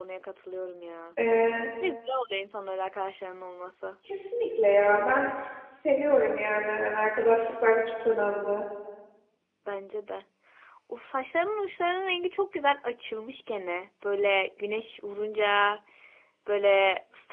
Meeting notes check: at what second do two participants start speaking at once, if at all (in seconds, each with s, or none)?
none